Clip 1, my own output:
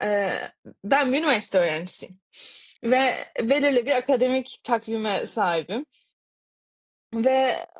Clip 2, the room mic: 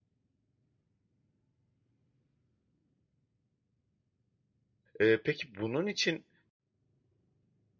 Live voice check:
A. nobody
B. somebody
B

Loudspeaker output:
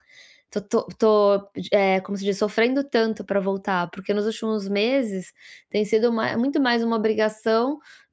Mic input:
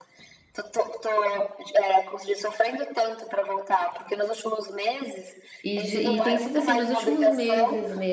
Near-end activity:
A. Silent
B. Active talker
B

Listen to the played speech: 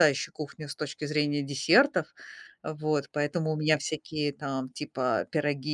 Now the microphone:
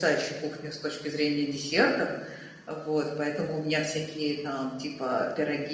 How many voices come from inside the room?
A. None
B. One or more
A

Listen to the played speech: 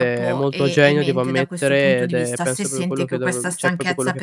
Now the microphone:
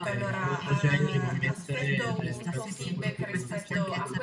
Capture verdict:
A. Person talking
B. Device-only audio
A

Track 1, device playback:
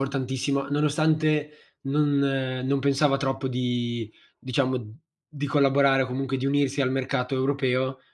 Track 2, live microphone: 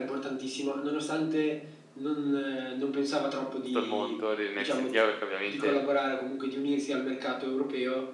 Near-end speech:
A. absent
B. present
B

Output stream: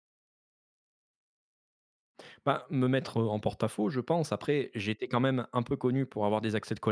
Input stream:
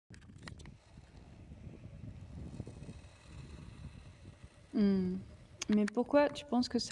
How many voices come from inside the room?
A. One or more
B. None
A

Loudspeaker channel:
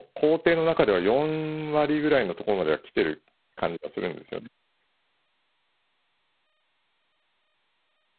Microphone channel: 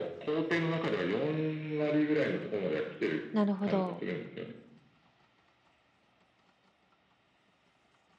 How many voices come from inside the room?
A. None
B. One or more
B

